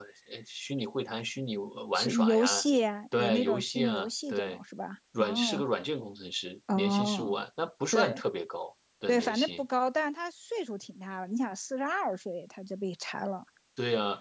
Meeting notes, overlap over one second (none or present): present